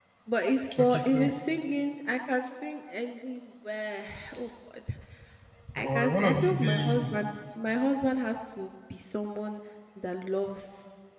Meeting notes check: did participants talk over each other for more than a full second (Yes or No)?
Yes